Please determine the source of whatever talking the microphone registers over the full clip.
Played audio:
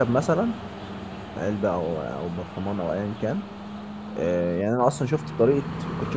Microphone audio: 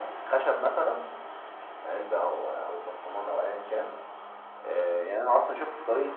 echo only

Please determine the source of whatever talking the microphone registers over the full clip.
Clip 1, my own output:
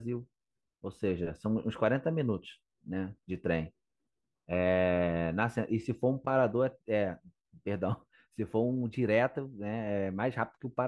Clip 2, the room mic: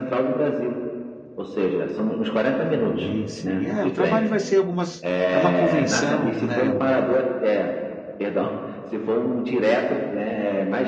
both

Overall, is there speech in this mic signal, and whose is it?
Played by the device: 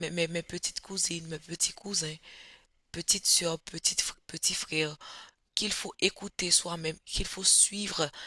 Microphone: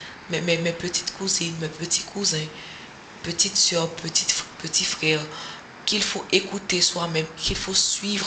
echo only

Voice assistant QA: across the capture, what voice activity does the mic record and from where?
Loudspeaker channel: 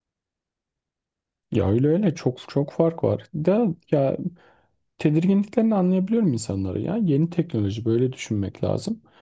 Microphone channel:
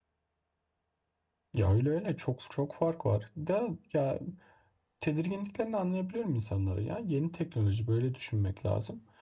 echo only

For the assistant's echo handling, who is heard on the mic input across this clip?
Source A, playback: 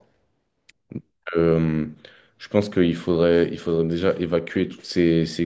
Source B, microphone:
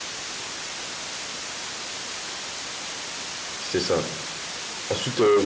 user only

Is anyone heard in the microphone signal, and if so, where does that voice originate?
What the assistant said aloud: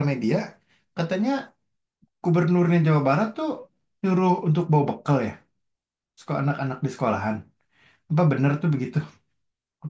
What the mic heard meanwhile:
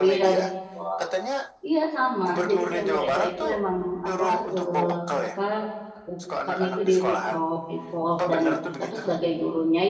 both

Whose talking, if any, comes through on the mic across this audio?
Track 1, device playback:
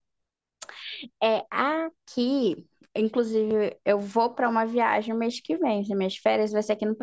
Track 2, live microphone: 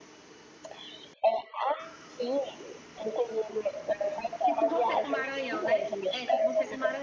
both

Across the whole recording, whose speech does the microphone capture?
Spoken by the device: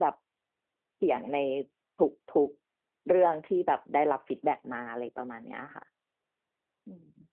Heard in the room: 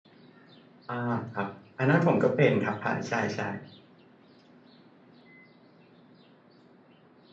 user only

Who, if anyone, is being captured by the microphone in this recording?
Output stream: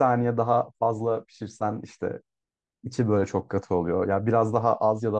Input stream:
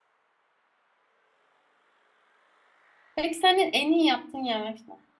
user only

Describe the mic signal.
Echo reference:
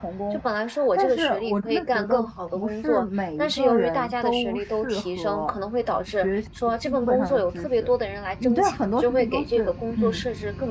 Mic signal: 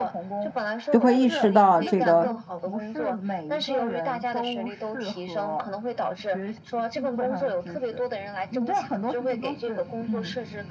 both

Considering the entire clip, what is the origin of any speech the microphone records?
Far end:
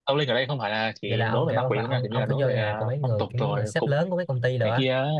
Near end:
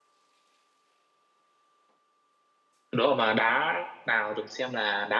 user only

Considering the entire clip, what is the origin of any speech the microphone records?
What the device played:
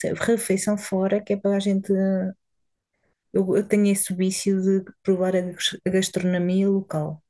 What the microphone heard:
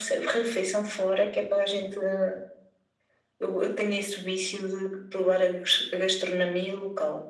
echo only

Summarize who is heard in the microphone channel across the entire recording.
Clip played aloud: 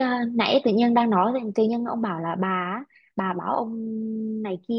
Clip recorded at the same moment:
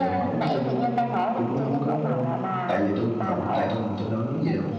both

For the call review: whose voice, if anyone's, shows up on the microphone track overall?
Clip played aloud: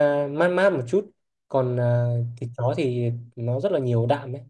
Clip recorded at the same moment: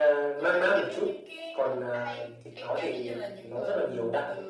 both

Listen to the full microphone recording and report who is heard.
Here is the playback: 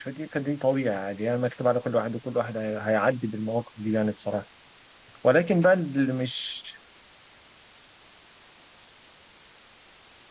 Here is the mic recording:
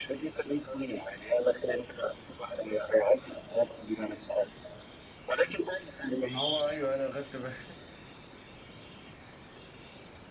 both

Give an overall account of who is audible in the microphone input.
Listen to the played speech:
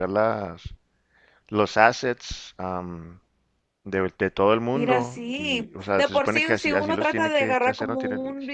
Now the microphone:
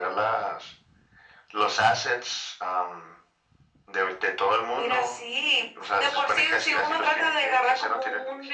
echo only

